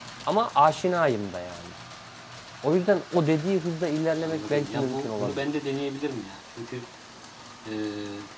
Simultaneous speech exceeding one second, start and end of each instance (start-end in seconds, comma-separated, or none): 4.2-5.4